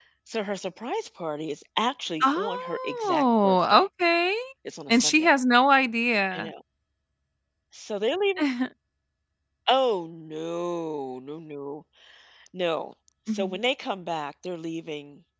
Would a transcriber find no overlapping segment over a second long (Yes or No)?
No